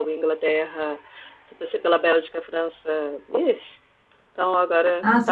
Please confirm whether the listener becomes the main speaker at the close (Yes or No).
Yes